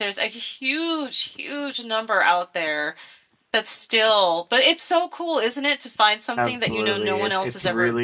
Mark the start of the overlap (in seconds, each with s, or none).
6.4 s